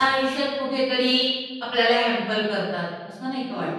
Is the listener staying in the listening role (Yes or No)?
No